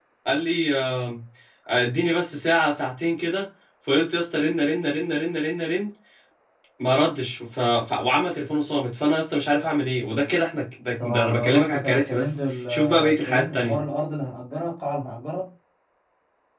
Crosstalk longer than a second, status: present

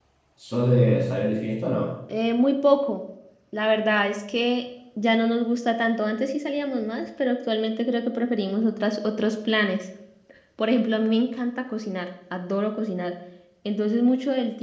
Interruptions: none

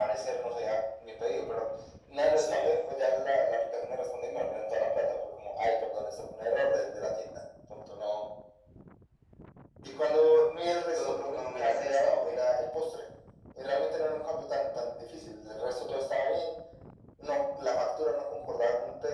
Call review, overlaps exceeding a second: present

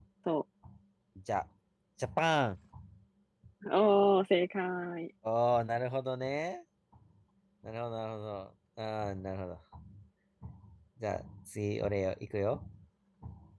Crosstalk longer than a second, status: none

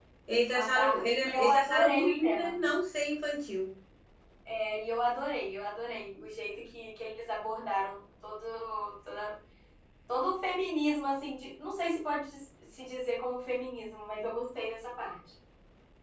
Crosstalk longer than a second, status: present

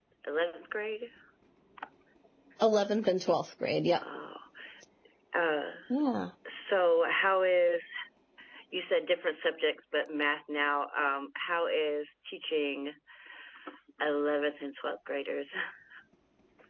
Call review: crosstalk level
none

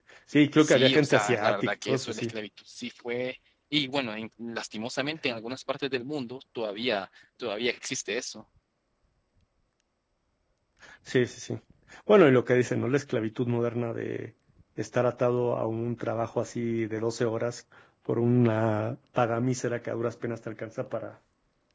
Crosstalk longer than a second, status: present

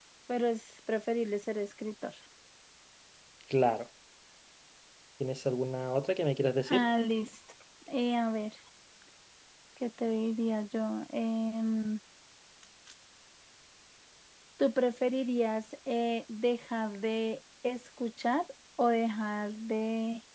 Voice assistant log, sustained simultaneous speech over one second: none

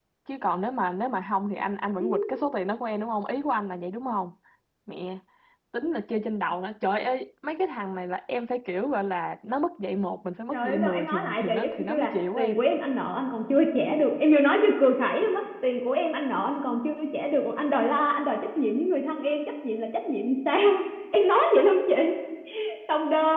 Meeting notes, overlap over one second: present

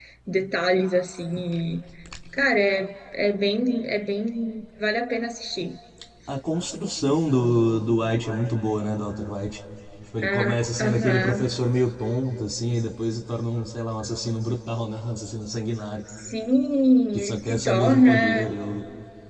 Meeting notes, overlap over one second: present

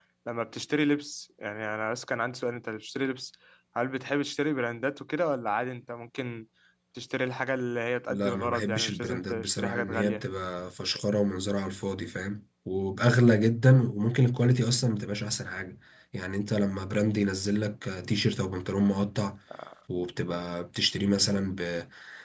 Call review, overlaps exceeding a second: present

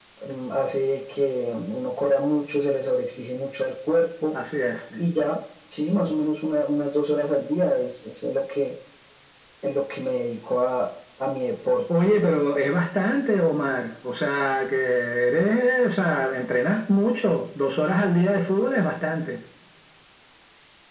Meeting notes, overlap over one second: none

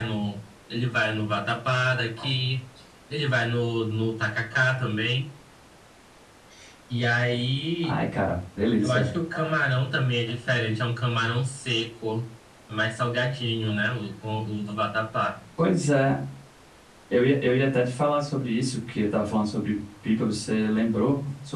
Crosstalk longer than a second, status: none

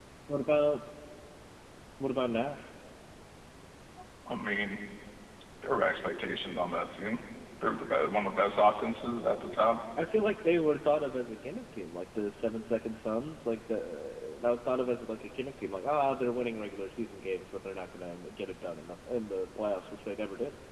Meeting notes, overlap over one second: none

